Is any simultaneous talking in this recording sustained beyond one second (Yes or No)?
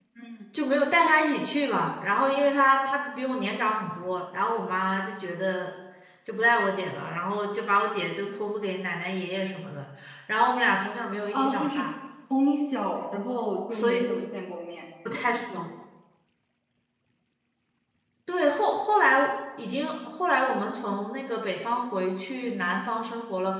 No